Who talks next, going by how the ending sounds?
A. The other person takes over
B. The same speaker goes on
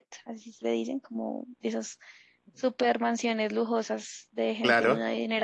B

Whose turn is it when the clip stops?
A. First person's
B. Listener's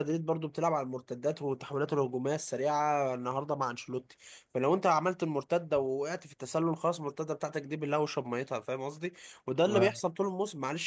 A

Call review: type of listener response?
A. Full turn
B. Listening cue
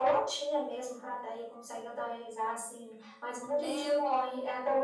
A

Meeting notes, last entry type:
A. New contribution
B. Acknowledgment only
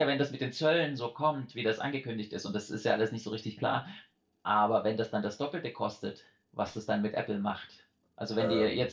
B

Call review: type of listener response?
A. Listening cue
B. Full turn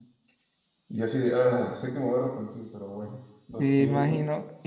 B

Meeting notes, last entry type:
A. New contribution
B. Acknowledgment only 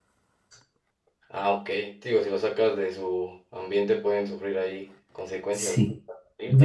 A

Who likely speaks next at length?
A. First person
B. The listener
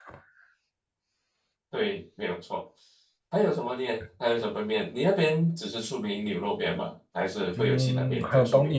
B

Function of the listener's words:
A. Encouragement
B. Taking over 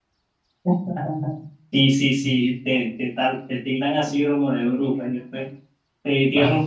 A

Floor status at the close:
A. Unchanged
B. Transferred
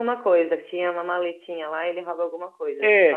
B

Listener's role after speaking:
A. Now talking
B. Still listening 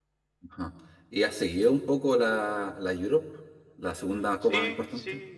A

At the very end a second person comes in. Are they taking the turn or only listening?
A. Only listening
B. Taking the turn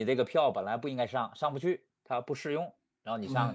B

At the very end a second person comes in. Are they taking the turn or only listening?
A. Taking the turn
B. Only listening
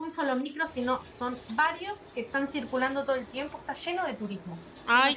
A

